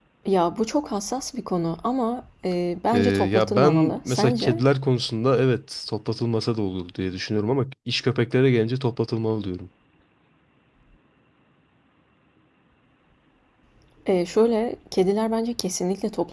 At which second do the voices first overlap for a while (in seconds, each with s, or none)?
2.9 s